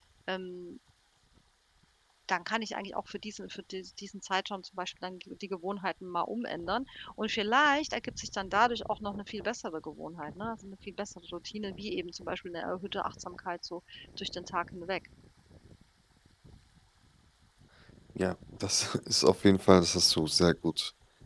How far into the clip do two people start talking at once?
none

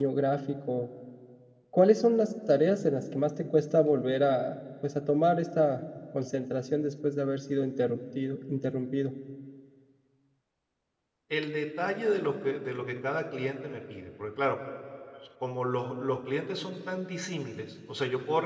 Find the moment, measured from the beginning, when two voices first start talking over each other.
none

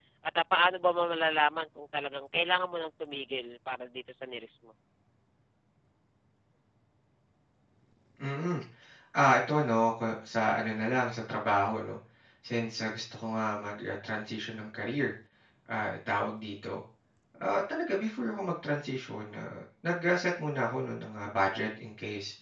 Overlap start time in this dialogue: none

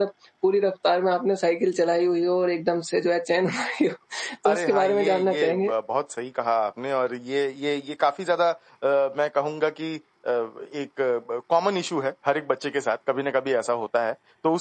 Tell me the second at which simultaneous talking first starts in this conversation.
4.5 s

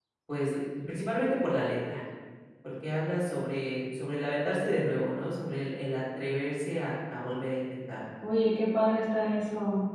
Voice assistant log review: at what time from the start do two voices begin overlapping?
none

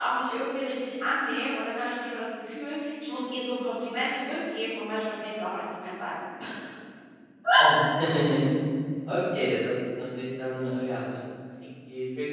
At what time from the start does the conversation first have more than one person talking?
none

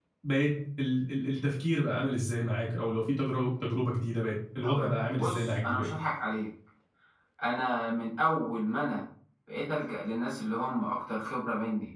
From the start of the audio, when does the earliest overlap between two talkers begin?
4.6 s

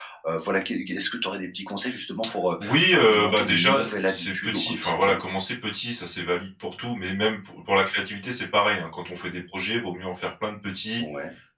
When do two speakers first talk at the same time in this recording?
2.6 s

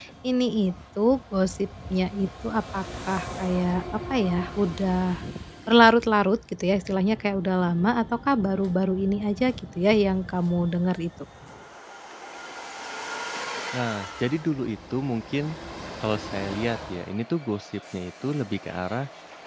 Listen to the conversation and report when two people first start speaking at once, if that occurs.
none

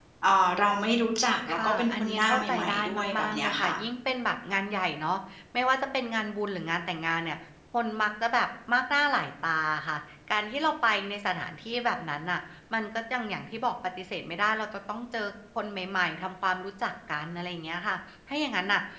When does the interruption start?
1.5 s

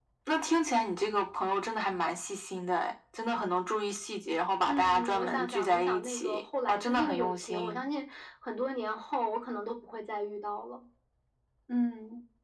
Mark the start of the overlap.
4.7 s

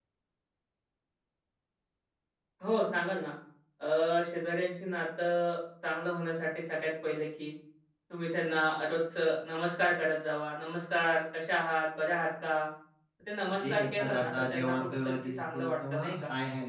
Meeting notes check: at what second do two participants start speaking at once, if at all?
13.6 s

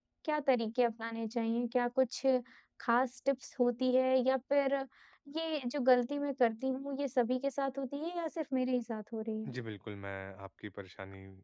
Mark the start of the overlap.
none

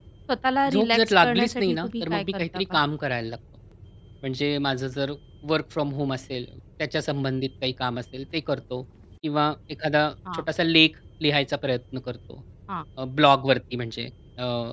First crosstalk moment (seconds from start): 0.7 s

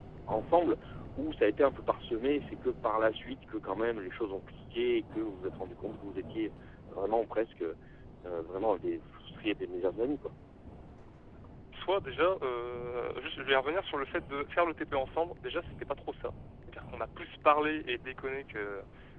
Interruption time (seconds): none

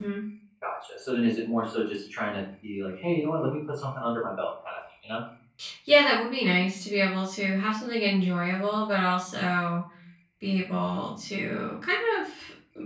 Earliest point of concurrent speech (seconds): none

